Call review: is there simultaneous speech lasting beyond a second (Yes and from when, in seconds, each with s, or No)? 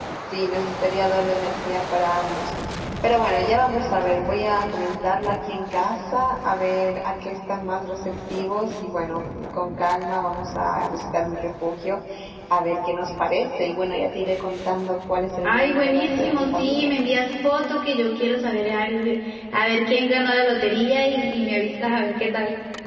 Yes, from 15.4 s